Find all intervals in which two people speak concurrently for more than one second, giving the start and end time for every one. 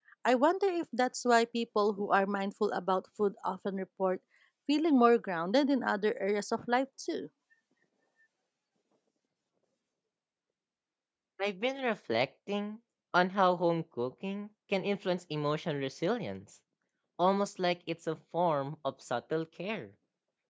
none

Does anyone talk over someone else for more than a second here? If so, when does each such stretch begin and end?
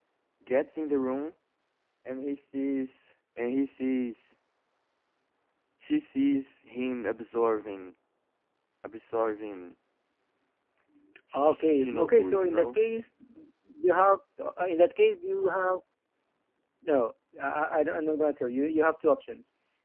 11.4-12.7

